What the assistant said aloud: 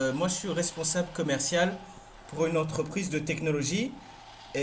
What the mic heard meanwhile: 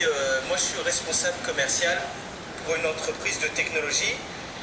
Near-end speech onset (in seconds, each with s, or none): none